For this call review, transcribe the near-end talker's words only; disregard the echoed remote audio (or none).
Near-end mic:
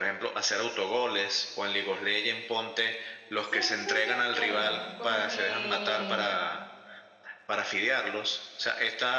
Sí estoy de acuerdo, porque